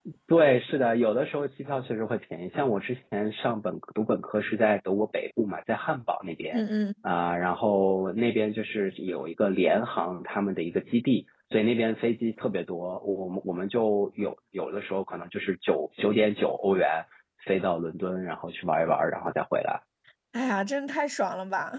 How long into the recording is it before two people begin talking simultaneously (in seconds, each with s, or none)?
none